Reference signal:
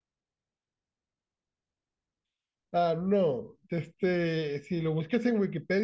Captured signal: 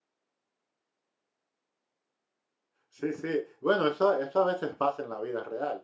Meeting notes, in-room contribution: present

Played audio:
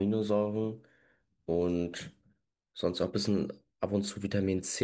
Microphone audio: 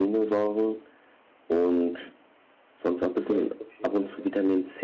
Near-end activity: present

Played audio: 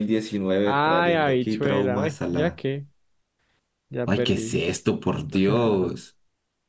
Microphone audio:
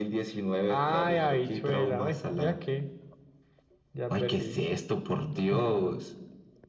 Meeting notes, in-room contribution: none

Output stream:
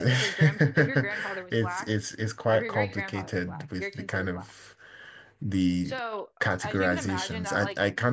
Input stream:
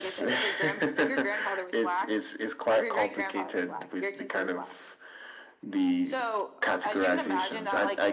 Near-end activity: none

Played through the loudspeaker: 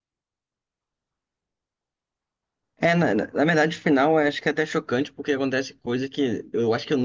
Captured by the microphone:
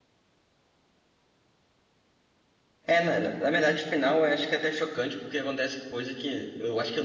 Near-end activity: none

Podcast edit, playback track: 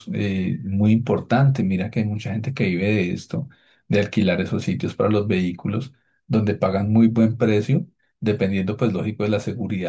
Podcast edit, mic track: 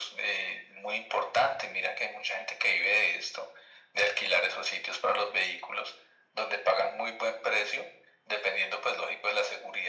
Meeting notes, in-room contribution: none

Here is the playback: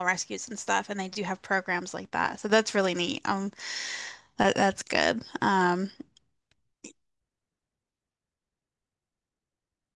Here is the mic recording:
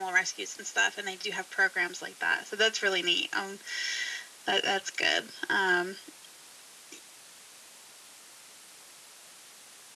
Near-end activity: none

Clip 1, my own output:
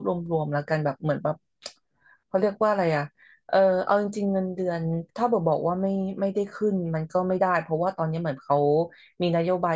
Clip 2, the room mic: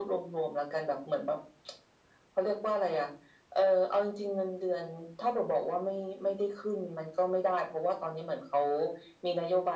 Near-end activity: none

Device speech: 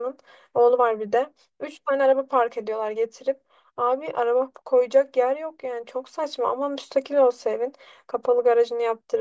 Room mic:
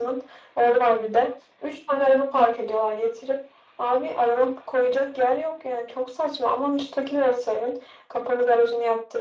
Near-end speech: none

